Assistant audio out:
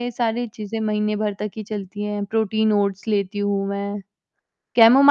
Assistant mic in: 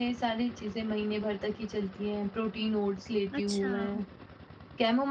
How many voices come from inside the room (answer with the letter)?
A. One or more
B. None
A